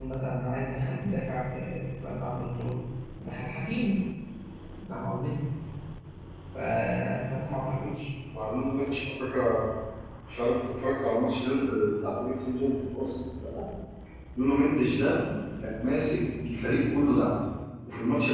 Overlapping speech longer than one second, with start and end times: none

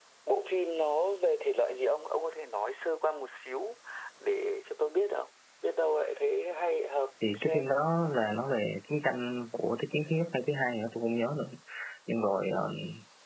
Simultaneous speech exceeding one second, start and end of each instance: none

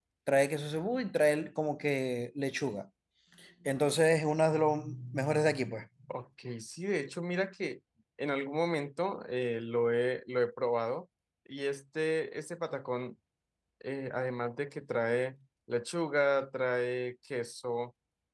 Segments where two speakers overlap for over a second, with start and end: none

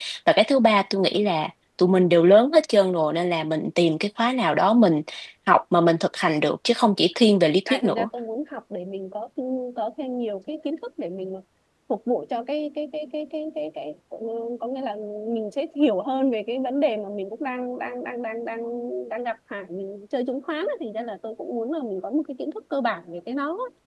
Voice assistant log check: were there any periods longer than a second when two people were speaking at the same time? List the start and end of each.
none

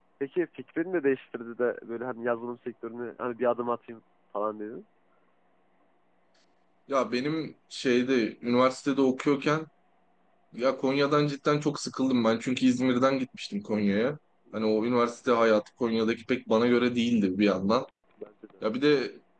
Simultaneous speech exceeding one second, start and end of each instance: none

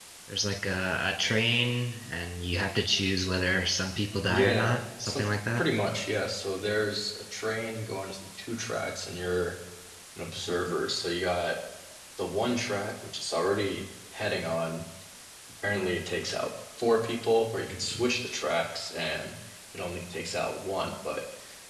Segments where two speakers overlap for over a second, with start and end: 4.2-5.6

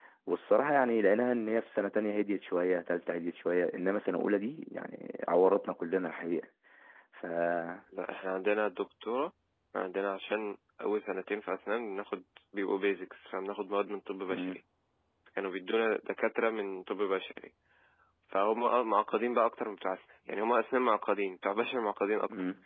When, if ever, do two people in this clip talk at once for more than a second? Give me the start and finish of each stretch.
none

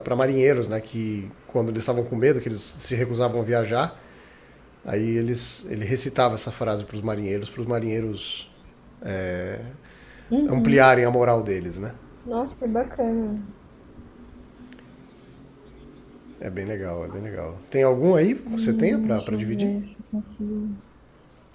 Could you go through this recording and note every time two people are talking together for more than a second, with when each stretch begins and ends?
18.4-19.7

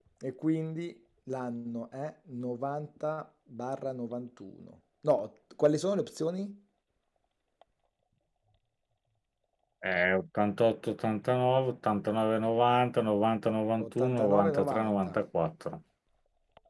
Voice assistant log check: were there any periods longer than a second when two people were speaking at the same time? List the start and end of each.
13.8-15.2

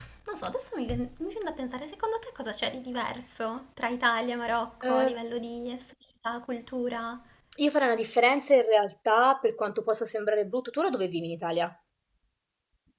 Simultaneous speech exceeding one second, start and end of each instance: none

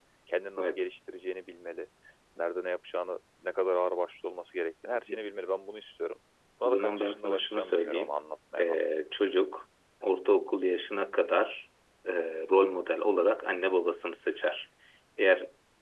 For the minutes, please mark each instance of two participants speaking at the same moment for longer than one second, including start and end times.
6.7-8.2

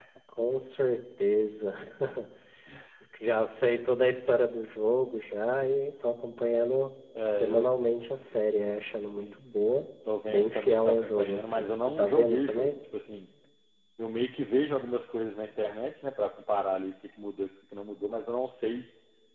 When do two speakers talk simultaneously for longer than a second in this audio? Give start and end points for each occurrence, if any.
10.3-12.7

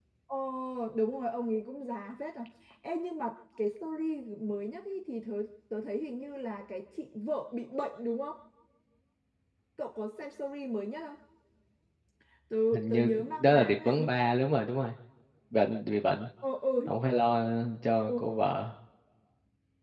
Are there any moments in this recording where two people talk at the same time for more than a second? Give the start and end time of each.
12.7-14.1

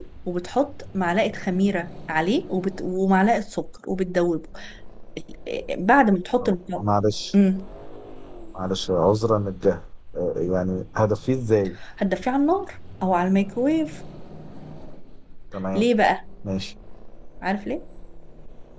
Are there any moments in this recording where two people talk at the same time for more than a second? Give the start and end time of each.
none

